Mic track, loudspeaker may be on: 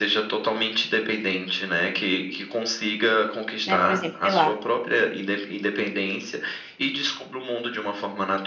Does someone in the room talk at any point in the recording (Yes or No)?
Yes